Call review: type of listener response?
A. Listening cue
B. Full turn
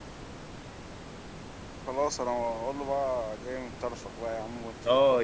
B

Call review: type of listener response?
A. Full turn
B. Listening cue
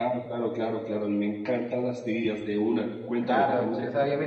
A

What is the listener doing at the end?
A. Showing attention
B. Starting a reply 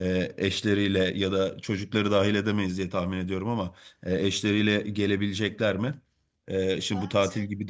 A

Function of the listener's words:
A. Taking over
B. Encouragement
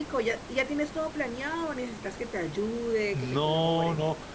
A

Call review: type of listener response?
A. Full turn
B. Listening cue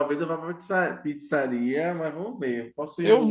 B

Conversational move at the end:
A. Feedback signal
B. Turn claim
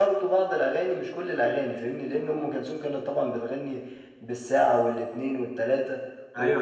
B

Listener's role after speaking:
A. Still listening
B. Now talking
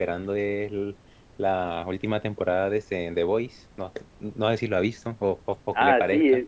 B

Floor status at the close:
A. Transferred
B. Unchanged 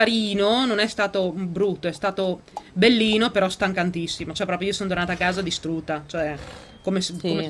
A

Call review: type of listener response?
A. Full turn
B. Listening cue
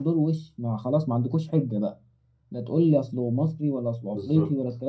B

